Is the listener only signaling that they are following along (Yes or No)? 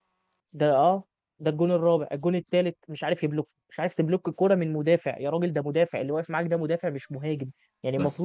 Yes